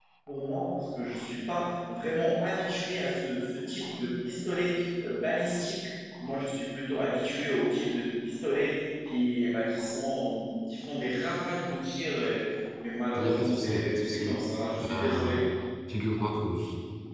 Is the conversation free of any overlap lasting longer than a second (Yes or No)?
No